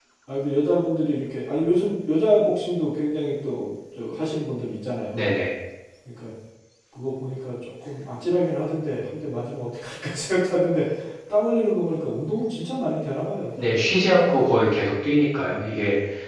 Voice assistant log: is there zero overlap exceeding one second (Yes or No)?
Yes